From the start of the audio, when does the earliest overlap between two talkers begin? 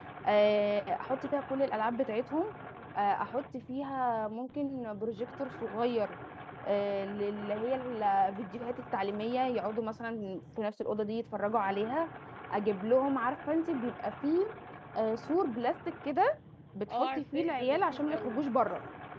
16.9 s

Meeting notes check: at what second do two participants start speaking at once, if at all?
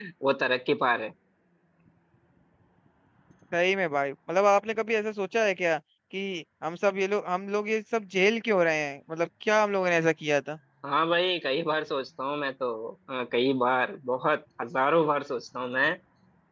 none

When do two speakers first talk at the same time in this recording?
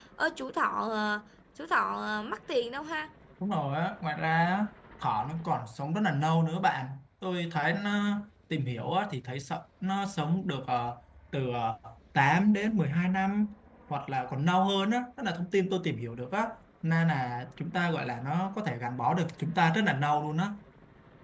none

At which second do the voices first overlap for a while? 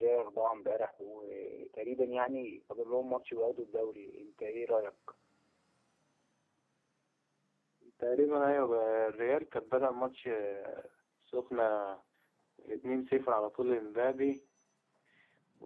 none

